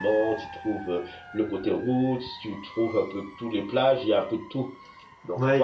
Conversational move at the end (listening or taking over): taking over